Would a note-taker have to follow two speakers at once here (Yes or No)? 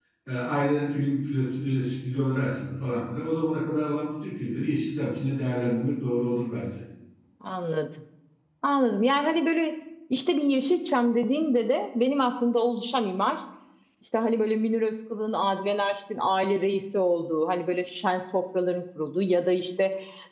No